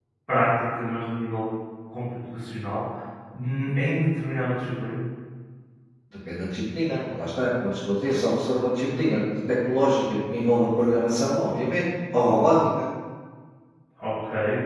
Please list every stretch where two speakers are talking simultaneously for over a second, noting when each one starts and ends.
none

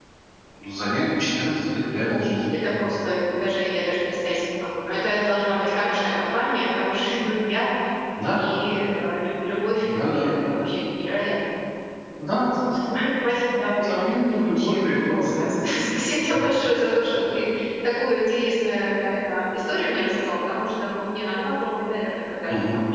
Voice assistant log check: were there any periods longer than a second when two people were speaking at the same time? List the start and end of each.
13.8-15.3

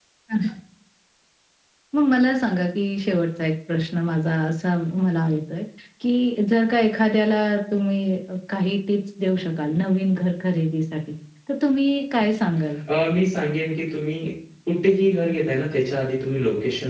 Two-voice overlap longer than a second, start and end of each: none

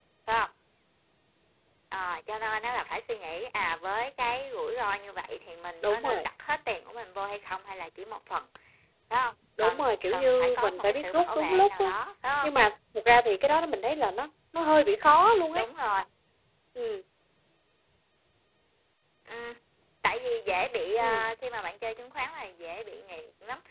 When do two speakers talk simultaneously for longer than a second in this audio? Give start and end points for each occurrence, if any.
9.6-11.9

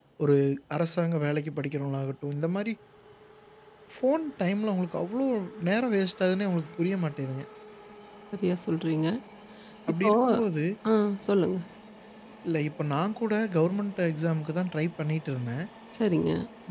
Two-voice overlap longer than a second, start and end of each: none

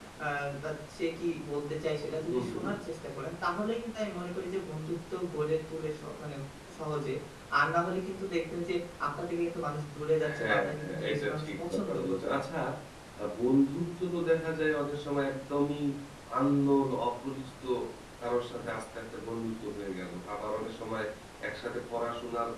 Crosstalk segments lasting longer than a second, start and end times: 10.4-12.4

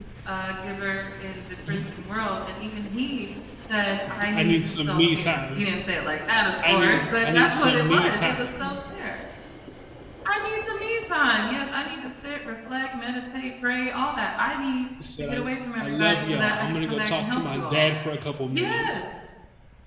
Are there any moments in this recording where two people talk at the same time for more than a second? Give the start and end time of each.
4.3-5.6, 6.7-8.7, 15.8-17.9

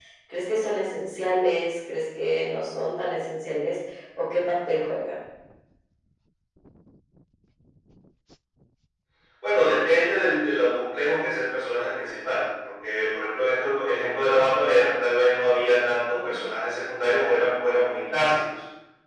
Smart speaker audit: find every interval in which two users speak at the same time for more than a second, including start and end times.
none

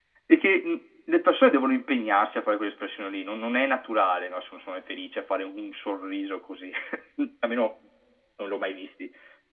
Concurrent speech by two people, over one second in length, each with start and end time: none

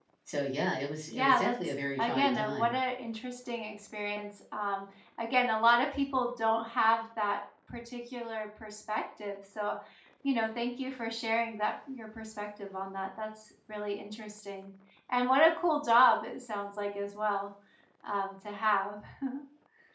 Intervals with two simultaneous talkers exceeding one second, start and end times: 1.1-2.8

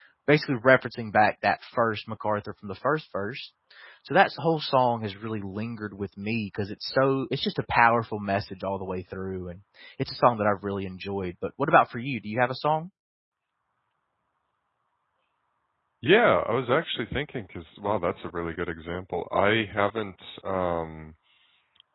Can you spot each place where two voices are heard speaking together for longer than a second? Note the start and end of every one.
none

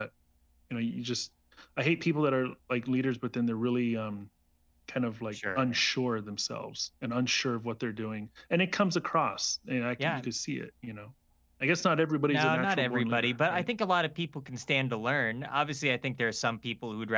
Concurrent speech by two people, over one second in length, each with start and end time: 12.3-13.7

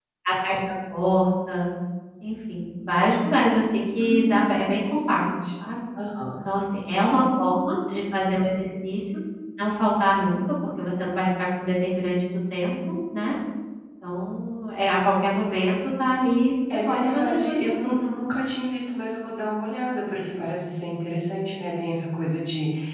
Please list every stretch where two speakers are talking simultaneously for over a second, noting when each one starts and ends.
4.0-5.5, 16.9-18.1

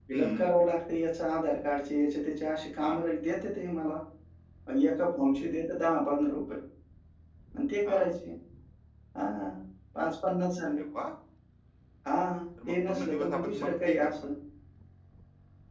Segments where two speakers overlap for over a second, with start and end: 12.7-14.1

